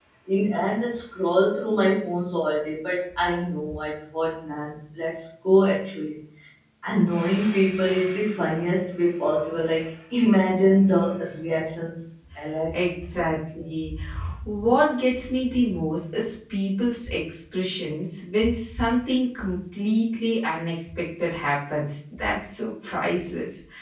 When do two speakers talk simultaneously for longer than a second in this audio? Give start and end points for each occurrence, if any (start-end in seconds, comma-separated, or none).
none